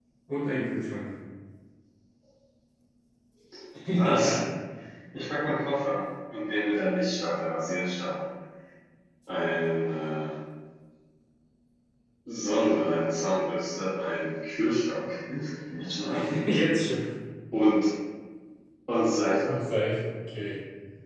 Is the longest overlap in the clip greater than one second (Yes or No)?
No